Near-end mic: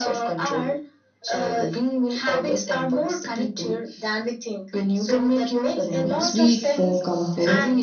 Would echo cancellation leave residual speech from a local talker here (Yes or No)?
Yes